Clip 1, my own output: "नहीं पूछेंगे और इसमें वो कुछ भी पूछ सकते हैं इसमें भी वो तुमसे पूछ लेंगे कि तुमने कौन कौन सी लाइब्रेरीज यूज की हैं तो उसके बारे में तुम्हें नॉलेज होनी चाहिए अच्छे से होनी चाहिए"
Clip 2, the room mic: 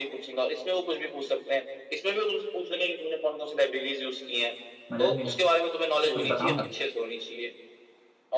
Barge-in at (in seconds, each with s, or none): 4.9 s